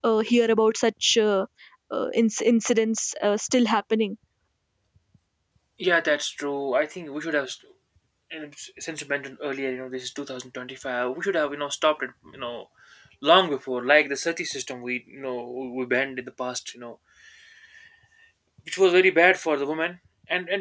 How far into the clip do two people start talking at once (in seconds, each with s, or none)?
none